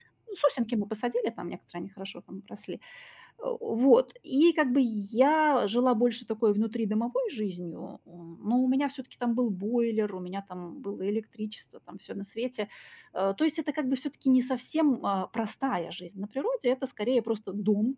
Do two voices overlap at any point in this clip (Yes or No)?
No